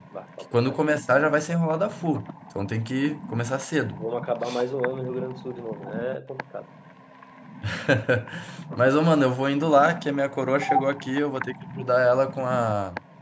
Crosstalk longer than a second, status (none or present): none